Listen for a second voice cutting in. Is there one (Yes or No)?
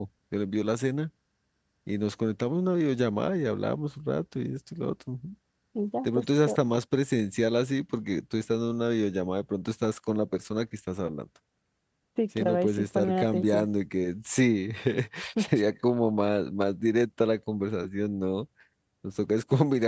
Yes